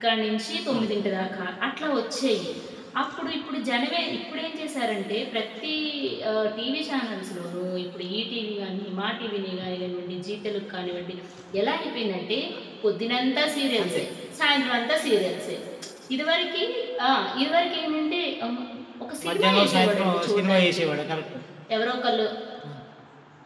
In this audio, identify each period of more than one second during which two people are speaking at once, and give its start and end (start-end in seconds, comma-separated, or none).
19.3-20.8